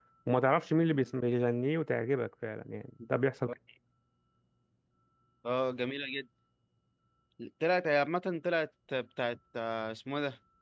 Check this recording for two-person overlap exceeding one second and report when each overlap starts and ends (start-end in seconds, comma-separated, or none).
none